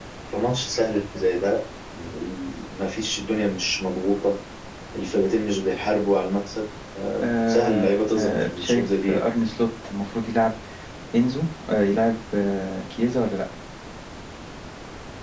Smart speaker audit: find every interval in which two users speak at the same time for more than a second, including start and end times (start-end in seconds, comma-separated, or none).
7.2-9.2